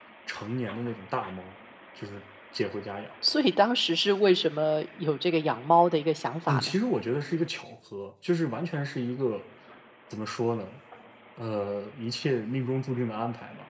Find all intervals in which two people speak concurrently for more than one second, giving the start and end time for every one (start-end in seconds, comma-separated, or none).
none